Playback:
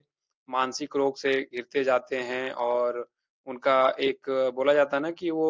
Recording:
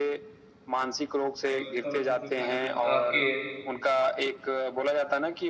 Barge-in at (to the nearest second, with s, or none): 2 s